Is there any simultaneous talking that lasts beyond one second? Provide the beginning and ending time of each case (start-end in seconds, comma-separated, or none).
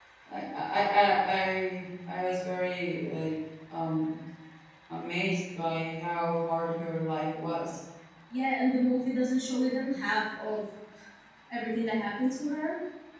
none